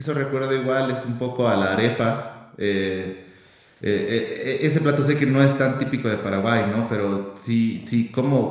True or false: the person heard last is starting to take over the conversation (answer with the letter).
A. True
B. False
B